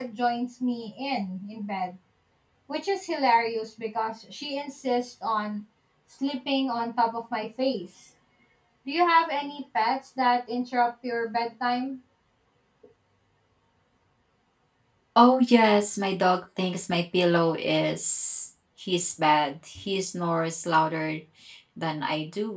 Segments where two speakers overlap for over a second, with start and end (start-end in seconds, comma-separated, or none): none